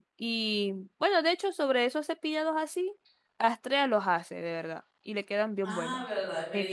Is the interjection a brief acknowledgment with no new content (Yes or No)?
No